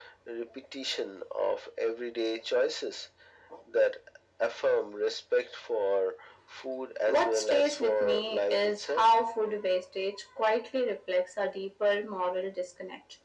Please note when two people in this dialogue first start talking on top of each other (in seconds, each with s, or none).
7.0 s